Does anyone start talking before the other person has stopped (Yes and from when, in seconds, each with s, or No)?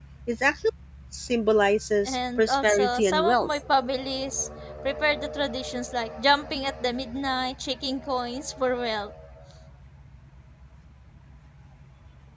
Yes, from 2.0 s